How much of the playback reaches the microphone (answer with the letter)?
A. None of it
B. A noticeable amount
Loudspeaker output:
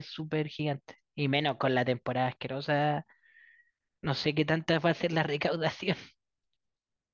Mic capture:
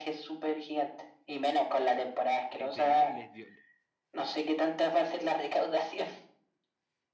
B